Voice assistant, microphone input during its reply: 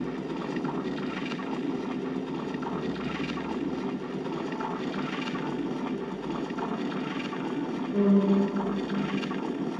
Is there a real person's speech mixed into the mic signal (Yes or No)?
Yes